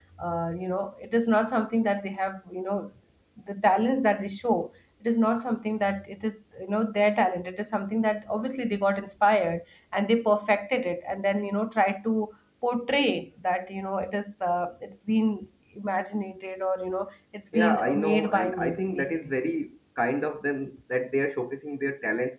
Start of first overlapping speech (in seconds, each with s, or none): 17.5 s